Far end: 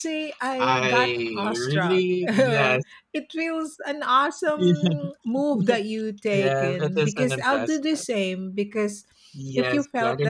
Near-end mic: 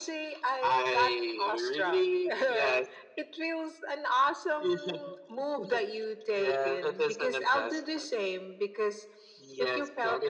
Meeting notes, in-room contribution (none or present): none